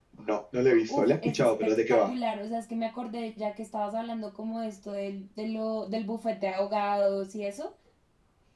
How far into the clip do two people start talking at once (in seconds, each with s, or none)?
0.9 s